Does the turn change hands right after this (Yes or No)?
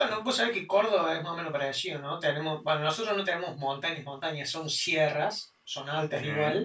No